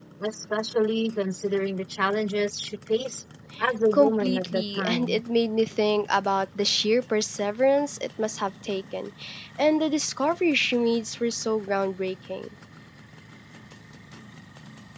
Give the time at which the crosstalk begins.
3.9 s

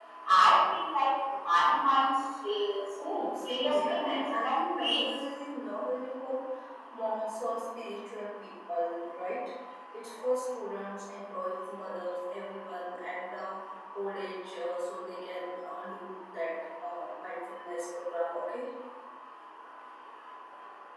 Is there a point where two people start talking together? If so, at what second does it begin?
3.0 s

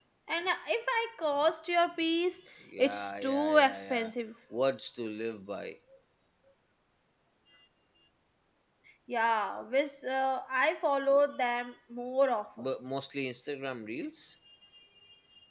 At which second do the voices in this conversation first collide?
2.8 s

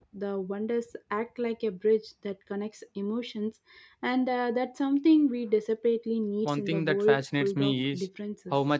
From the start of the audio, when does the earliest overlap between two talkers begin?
6.4 s

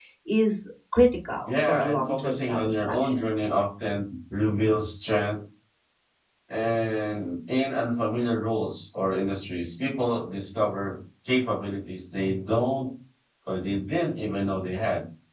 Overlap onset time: 1.5 s

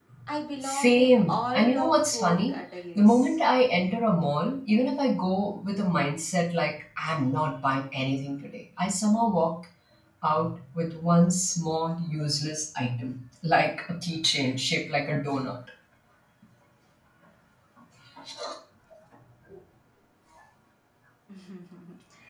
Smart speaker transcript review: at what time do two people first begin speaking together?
0.6 s

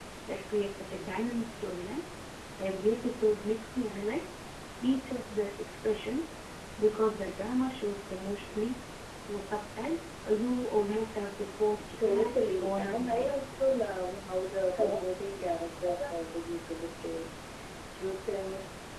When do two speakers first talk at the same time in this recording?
12.0 s

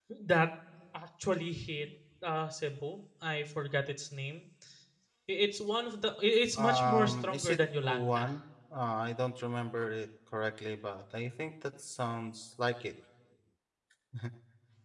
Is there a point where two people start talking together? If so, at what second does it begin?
6.6 s

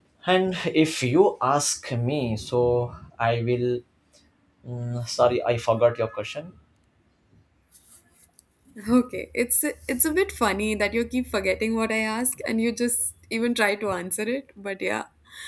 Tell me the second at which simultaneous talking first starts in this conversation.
none

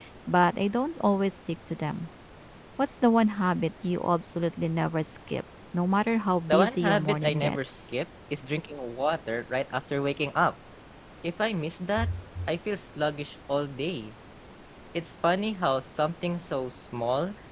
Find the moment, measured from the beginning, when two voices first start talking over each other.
6.5 s

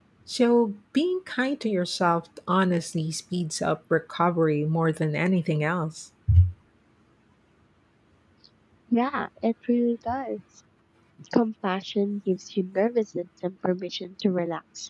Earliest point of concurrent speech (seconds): none

